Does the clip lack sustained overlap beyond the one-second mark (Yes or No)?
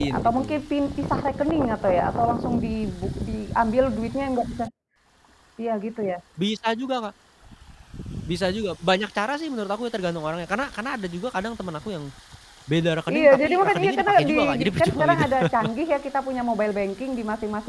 No